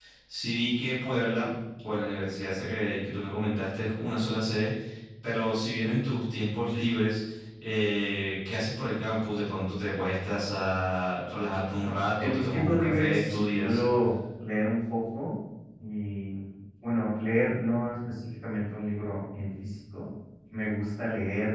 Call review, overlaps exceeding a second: present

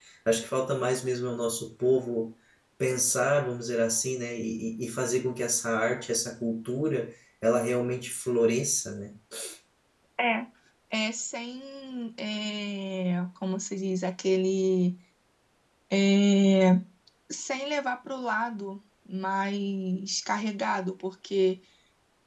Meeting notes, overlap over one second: none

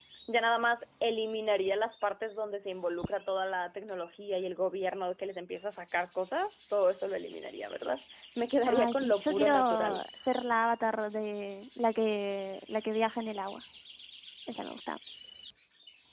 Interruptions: present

